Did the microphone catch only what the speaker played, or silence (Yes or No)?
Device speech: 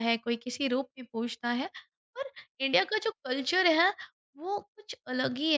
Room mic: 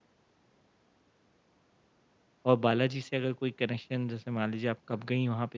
No